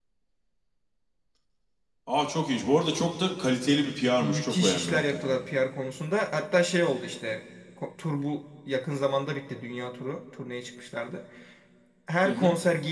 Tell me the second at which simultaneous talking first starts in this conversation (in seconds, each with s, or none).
4.2 s